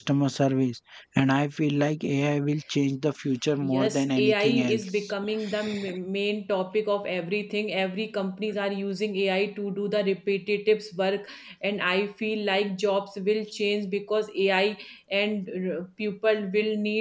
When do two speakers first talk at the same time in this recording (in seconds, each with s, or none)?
3.6 s